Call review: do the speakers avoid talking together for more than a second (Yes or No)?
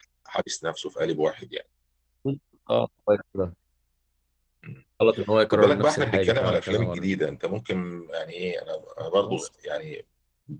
No